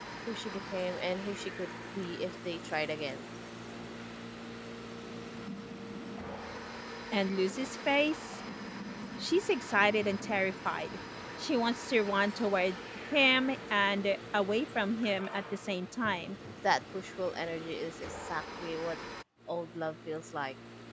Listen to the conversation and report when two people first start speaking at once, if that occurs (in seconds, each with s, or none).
none